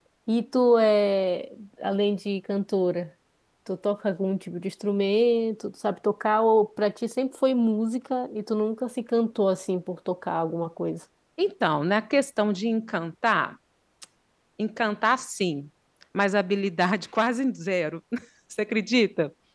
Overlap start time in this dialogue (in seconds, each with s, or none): none